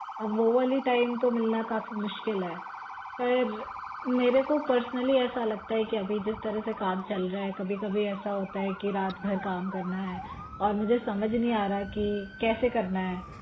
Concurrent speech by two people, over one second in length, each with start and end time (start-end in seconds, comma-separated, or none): none